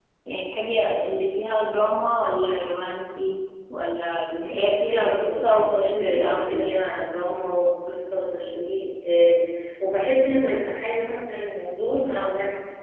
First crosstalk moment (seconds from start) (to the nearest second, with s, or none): 4 s